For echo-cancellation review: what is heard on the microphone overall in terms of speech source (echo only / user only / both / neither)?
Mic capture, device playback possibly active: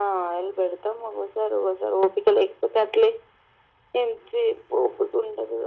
echo only